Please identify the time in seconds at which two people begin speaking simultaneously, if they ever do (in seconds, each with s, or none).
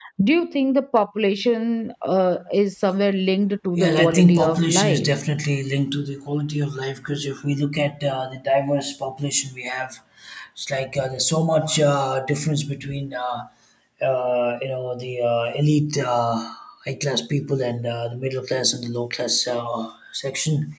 3.8 s